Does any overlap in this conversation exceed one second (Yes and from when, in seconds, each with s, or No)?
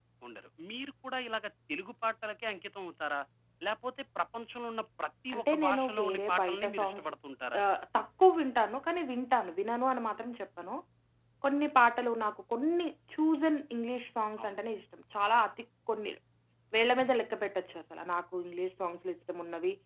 Yes, from 5.3 s